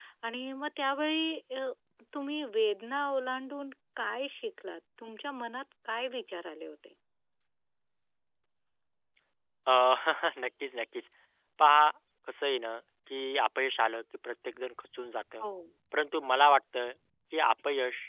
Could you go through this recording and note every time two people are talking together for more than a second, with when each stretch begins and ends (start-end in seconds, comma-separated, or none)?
none